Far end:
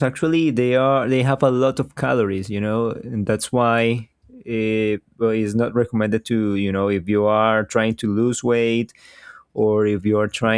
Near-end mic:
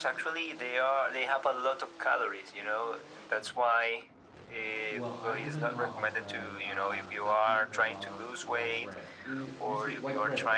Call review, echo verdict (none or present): present